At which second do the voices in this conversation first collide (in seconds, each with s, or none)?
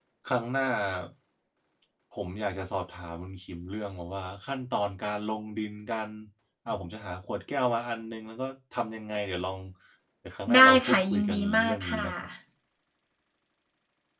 10.5 s